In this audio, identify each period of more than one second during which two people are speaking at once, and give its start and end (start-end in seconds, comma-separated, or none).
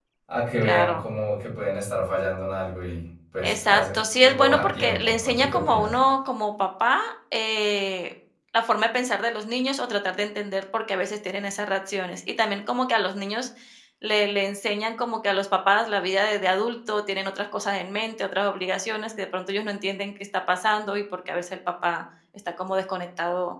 3.4-5.9